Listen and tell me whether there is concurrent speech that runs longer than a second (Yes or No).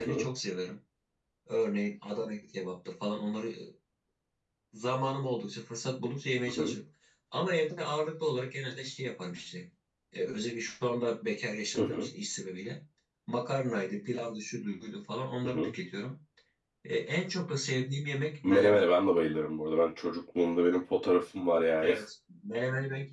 No